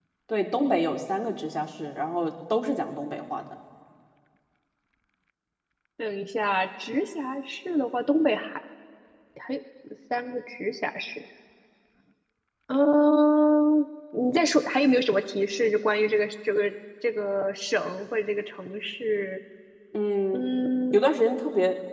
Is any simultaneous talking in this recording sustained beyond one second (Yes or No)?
No